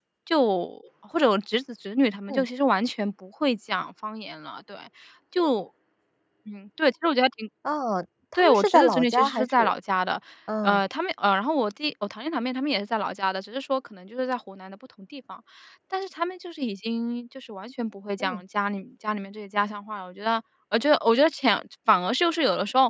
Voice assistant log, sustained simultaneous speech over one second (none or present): present